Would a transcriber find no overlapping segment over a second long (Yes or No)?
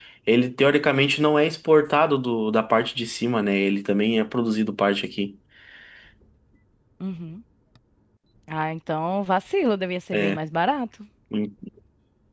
Yes